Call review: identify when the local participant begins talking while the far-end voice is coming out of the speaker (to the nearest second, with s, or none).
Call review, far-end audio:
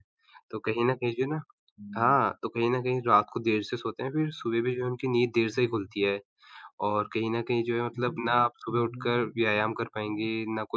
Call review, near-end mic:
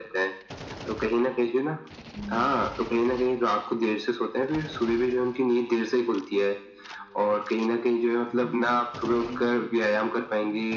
none